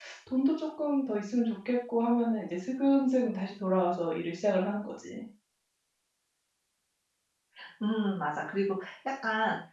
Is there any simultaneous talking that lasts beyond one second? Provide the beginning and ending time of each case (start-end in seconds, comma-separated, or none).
none